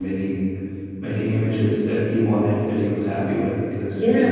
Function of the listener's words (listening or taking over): taking over